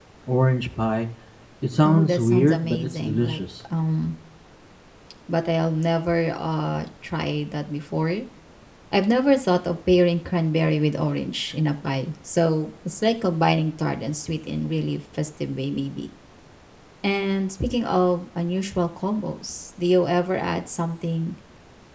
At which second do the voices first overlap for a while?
1.8 s

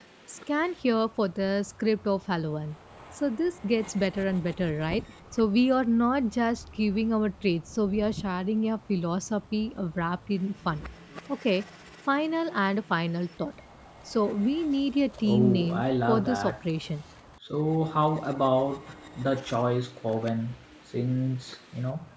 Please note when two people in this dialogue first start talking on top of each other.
15.2 s

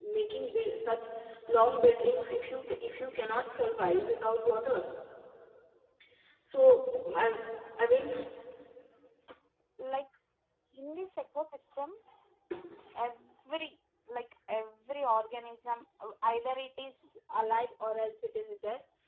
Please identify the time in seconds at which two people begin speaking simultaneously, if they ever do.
none

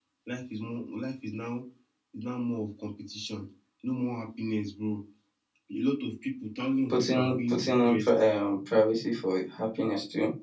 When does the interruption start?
6.9 s

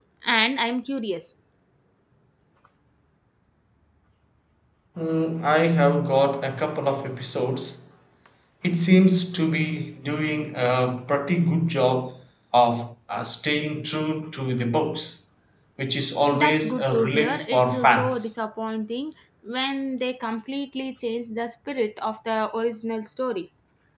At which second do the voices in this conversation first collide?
16.3 s

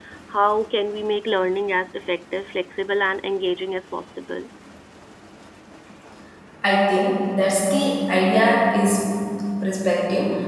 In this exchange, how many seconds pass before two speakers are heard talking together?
none

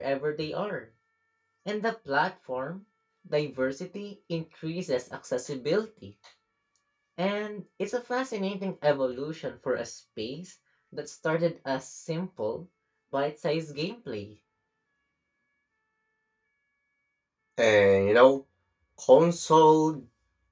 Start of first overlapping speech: none

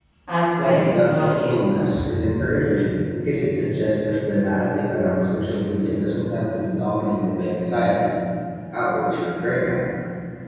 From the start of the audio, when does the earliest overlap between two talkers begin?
0.6 s

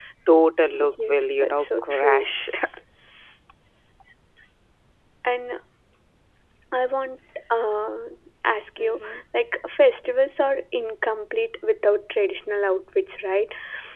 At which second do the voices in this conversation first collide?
1.1 s

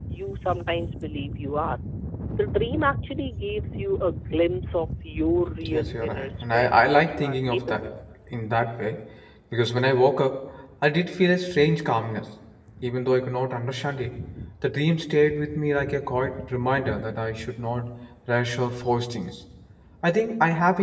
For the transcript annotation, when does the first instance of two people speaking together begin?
5.6 s

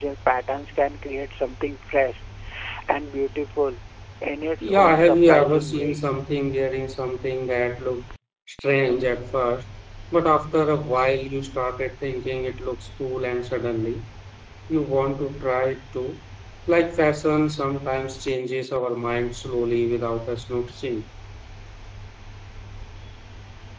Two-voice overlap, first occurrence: 4.6 s

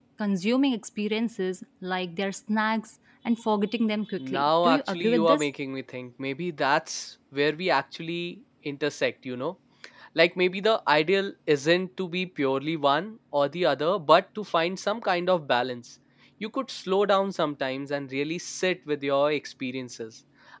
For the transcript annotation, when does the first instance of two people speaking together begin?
4.2 s

